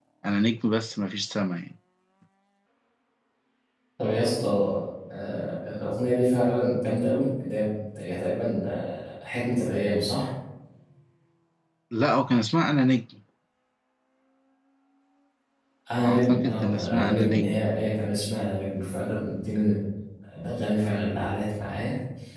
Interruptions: present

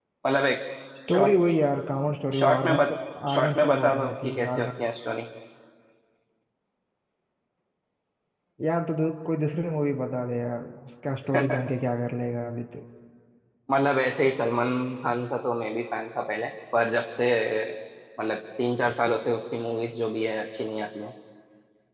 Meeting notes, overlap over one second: present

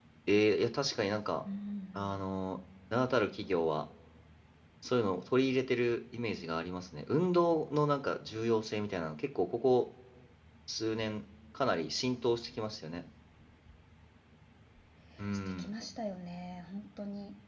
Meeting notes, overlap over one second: none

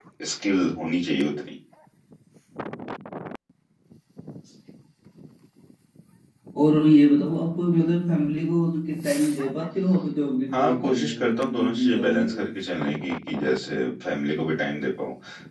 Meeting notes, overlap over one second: present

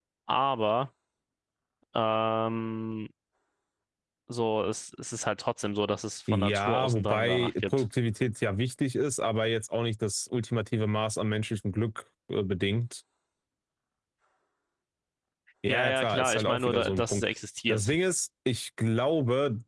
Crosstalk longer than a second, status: present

